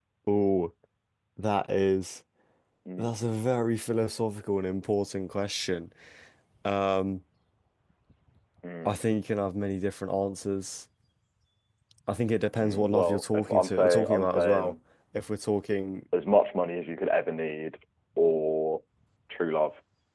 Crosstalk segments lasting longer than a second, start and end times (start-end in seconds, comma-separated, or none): 12.6-14.7